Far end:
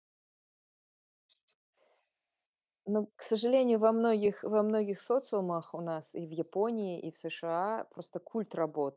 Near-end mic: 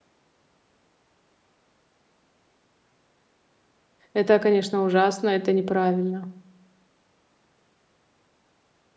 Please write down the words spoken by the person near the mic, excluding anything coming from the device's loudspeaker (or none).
Это, конечно, ужасно, это неправильно.